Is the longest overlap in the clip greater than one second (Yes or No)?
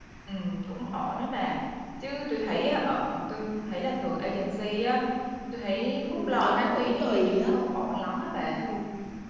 Yes